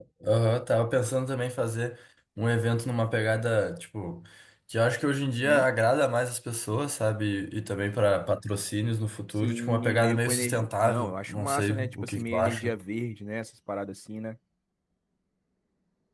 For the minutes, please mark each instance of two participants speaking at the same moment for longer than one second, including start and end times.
9.3-12.8

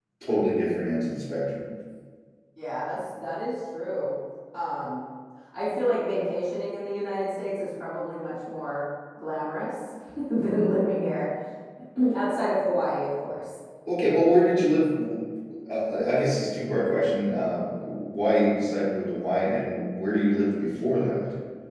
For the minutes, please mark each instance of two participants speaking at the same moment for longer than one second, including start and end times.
none

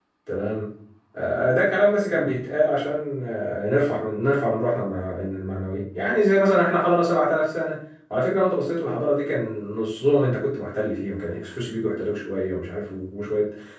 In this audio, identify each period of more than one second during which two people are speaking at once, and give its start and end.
none

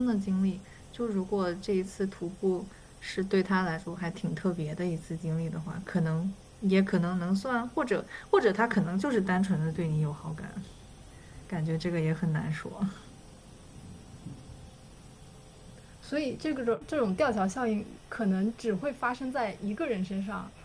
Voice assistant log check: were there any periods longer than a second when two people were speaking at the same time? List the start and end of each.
none

